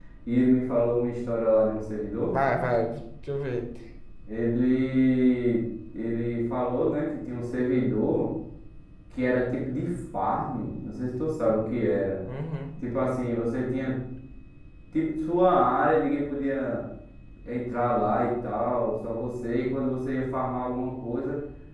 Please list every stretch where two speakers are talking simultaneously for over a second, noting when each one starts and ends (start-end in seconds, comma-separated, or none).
none